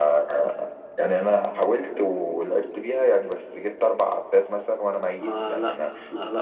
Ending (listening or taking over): taking over